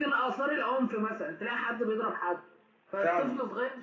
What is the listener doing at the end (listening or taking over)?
listening